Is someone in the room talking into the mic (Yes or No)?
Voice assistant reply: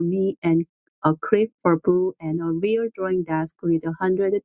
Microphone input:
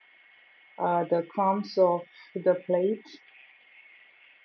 Yes